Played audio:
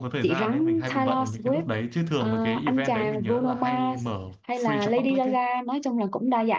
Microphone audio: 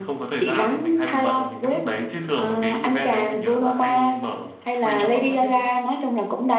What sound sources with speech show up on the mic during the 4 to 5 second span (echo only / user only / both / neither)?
echo only